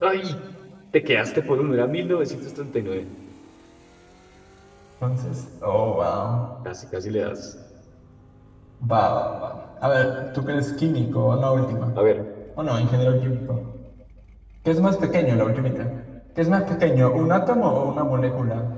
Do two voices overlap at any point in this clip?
No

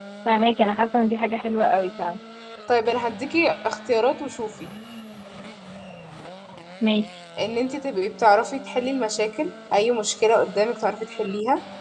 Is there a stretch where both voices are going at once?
No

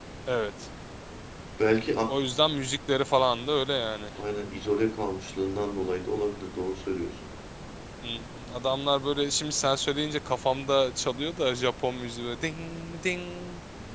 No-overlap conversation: Yes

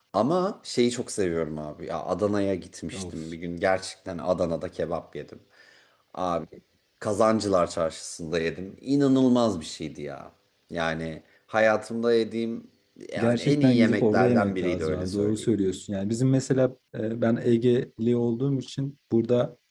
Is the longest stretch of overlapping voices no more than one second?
No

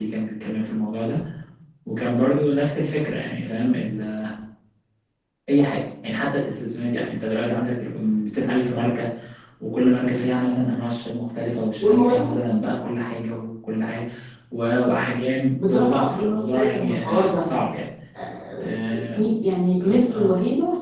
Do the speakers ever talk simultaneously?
Yes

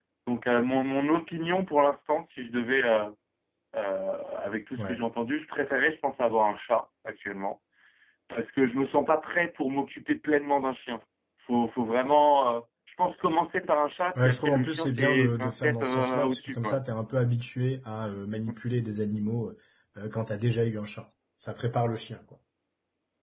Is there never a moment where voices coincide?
No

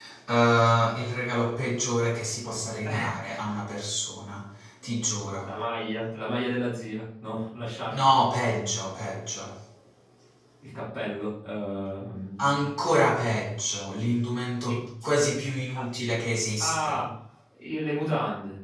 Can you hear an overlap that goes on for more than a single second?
No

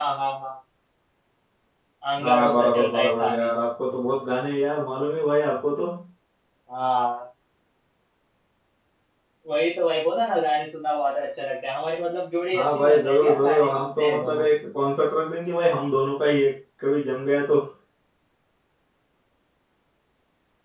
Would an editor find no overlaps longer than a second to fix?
No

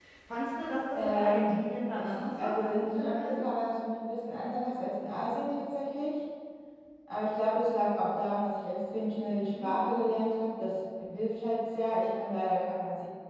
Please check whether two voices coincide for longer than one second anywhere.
Yes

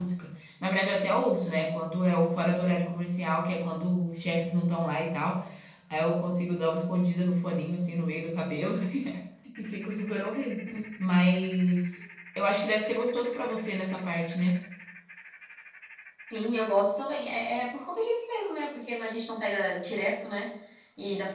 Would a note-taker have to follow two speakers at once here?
No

